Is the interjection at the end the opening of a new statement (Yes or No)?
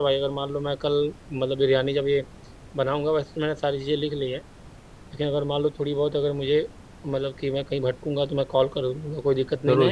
Yes